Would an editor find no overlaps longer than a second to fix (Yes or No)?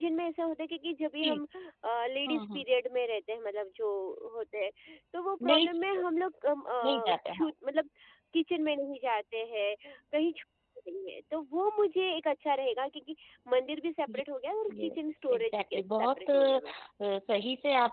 No